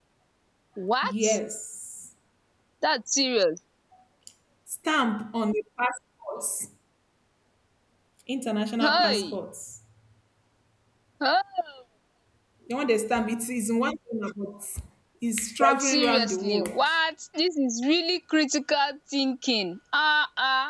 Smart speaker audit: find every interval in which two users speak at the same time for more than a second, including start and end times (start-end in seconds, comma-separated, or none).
15.6-16.9